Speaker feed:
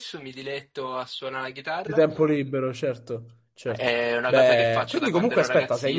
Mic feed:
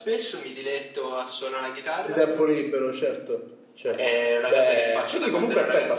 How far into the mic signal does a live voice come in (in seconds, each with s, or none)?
none